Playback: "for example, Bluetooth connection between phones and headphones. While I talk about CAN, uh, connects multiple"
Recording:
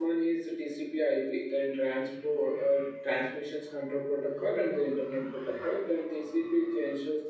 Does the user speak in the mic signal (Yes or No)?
Yes